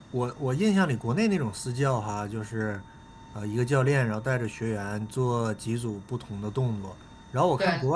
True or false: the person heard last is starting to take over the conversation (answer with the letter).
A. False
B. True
A